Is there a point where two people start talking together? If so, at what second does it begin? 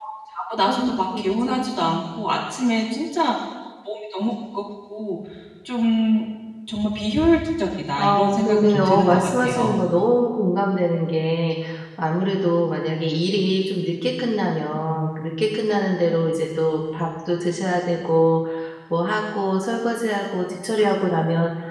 0.7 s

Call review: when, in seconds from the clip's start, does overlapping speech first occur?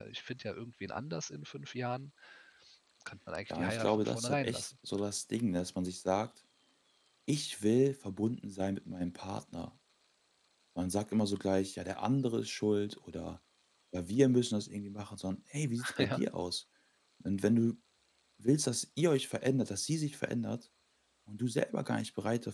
3.5 s

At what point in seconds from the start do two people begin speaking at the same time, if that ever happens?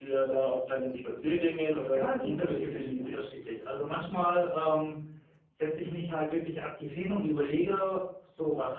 1.9 s

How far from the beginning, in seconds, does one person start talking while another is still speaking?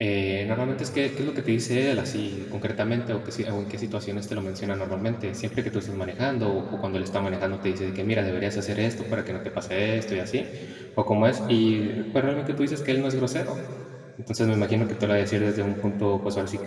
none

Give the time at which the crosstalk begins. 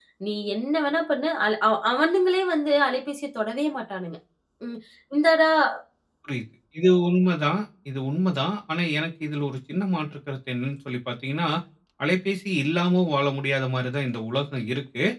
none

